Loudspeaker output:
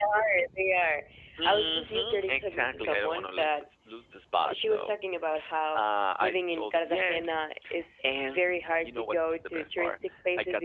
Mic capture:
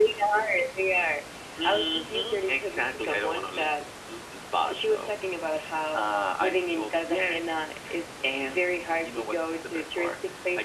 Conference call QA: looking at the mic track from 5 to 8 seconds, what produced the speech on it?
echo only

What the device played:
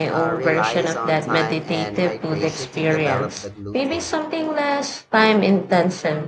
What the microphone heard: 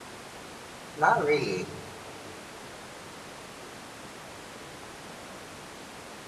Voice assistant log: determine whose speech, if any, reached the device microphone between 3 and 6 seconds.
neither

